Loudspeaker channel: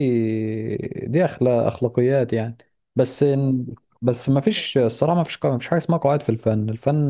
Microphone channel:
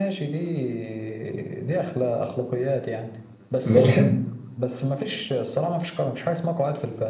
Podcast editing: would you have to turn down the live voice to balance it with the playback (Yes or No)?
Yes